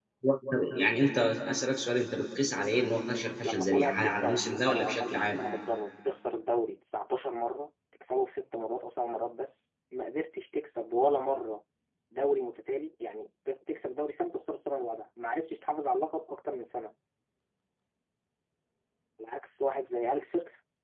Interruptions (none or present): present